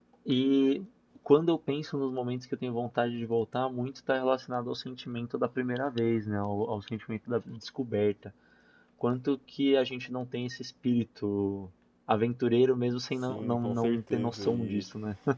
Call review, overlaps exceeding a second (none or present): present